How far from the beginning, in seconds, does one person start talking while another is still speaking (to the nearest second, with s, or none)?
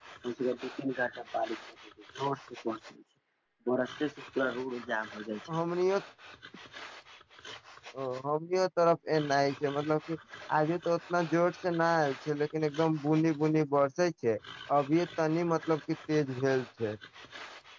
none